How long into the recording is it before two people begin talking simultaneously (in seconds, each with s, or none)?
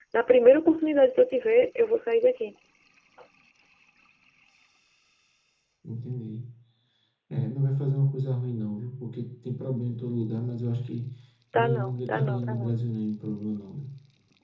11.5 s